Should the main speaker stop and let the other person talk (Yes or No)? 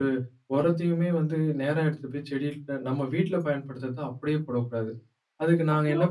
No